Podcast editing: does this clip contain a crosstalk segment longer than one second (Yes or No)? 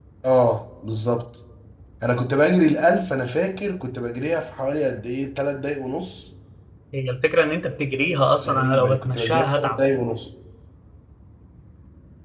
Yes